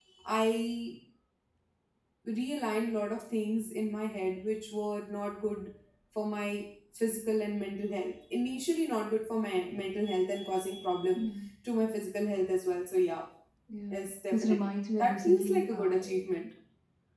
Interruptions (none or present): present